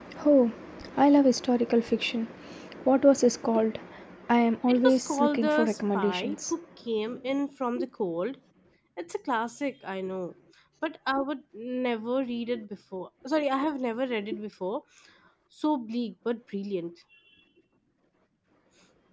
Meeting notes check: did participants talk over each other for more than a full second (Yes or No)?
Yes